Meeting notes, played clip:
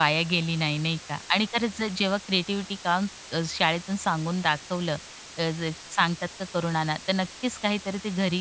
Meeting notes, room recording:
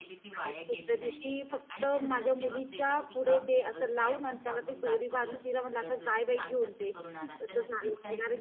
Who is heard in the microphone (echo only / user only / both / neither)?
both